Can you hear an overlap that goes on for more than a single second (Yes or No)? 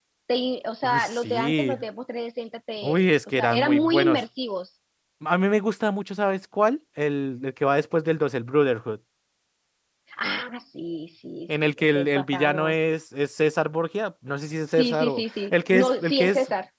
Yes